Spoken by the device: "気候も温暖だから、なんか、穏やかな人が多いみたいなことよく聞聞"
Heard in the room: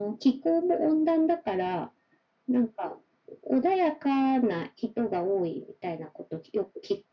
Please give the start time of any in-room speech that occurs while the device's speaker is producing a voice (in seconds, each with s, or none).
none